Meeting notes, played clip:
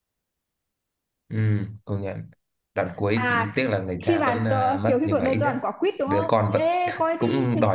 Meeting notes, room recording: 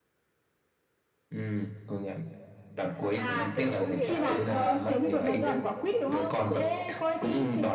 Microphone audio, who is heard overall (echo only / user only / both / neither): both